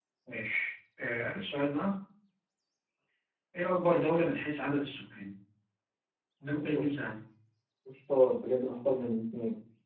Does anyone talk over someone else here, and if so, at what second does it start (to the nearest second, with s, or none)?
none